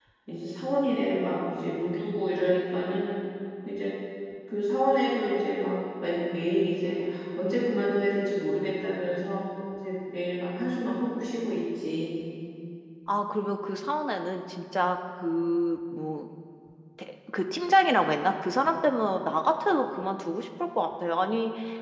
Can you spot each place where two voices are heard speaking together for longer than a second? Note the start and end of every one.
none

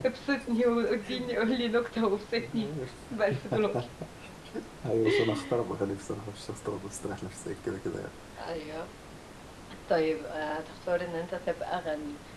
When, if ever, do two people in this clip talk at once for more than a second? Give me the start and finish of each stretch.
none

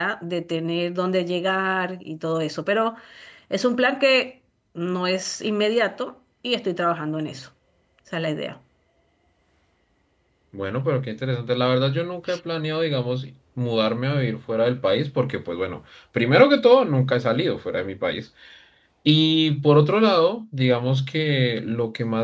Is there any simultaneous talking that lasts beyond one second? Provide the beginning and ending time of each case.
none

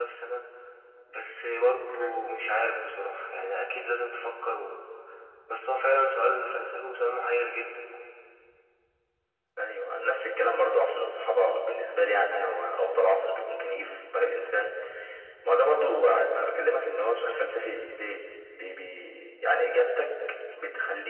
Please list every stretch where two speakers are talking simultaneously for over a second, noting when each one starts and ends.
none

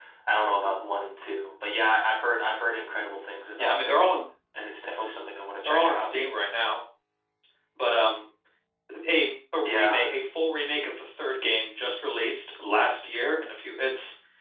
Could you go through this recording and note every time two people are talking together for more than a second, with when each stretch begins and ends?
none

